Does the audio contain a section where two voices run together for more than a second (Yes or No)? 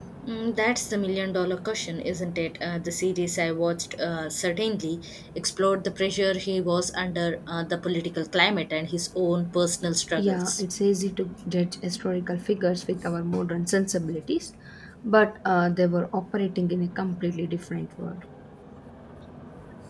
No